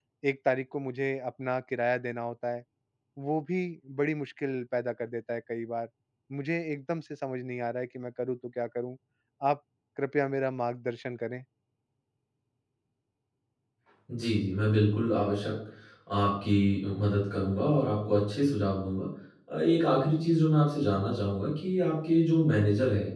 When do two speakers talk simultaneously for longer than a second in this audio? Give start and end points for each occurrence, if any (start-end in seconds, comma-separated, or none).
none